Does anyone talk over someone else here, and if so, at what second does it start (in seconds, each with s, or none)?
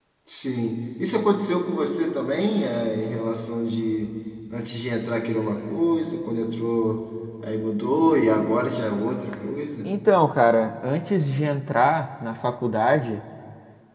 none